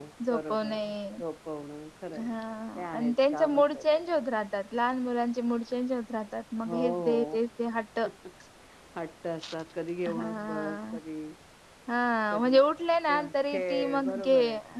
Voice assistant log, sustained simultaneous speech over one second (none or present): present